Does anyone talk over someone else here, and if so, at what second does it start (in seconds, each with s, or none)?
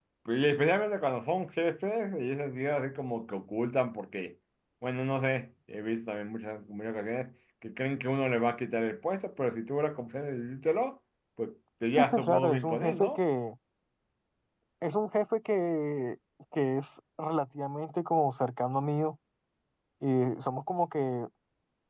12.0 s